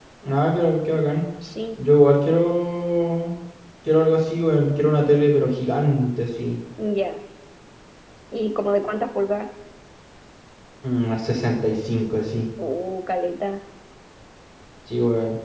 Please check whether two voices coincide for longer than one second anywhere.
No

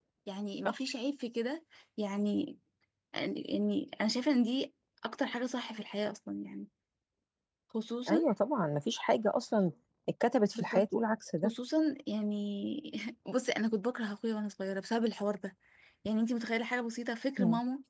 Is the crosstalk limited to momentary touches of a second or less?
Yes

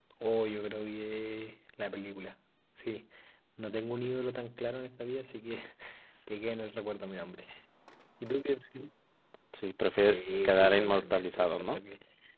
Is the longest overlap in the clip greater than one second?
Yes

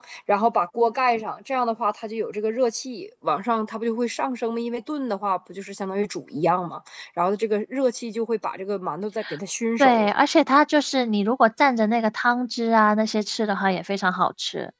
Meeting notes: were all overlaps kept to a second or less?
Yes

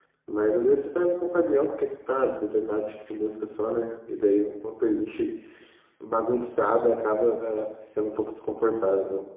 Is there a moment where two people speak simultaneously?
No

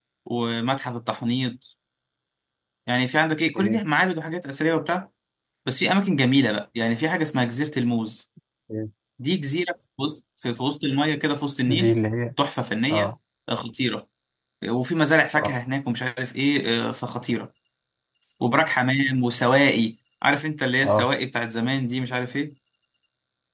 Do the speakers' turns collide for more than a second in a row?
No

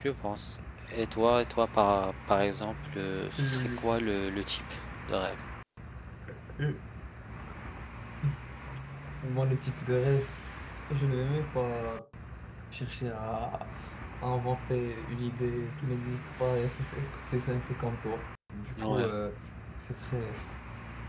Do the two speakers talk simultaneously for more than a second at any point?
No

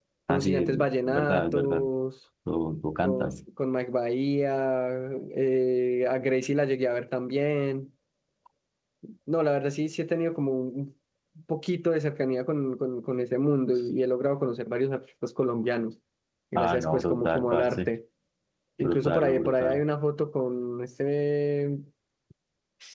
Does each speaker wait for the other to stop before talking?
No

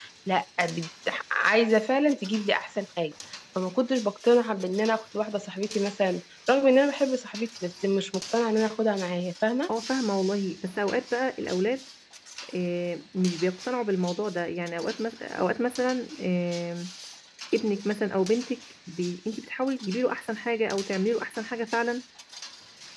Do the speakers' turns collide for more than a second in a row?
No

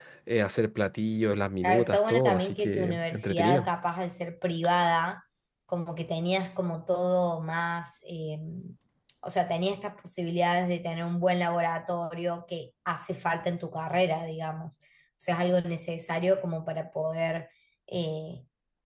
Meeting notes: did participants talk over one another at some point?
Yes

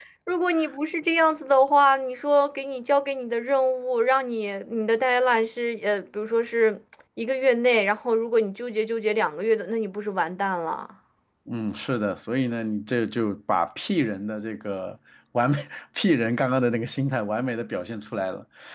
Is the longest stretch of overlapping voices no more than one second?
Yes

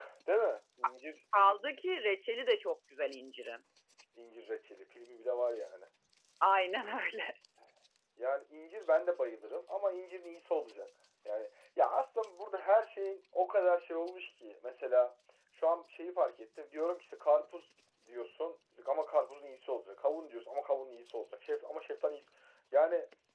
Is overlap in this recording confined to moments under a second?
Yes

